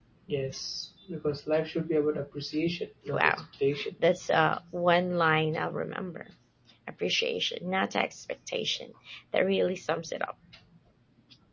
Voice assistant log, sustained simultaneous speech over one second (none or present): none